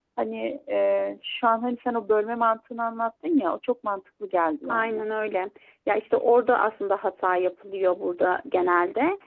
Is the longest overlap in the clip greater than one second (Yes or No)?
No